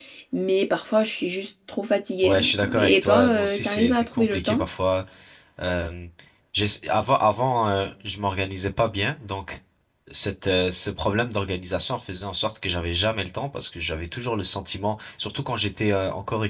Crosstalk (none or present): present